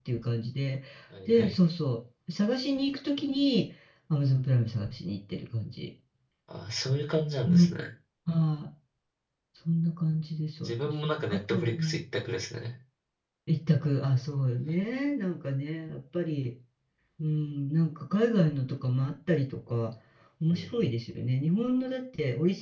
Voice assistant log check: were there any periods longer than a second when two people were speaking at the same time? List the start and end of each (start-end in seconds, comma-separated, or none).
10.7-12.0